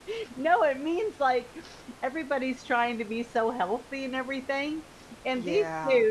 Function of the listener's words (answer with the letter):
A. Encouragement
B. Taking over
A